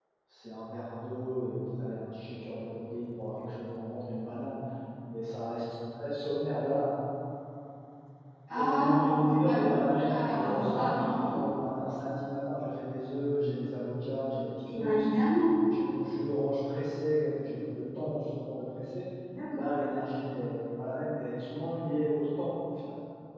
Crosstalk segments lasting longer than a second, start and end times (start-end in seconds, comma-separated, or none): 8.5-11.4